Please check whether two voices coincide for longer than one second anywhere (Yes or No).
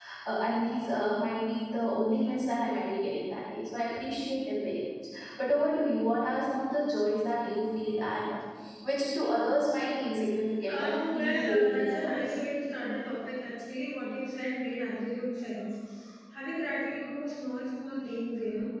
Yes